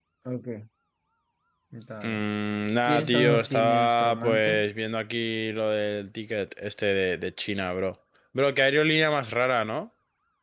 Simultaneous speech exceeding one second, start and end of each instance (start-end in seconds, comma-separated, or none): 2.8-4.6